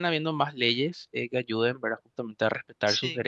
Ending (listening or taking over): listening